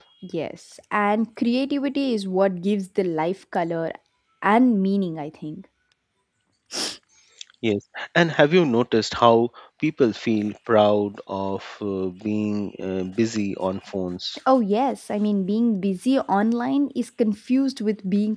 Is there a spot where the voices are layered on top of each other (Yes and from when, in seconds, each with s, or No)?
No